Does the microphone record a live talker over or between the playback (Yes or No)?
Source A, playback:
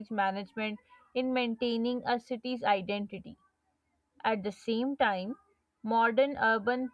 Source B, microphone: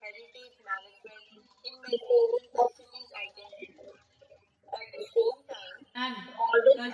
Yes